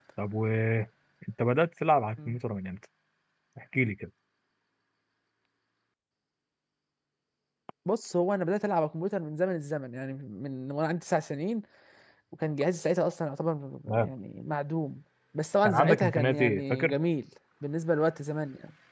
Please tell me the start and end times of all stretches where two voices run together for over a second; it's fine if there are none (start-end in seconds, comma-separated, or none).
15.6-16.9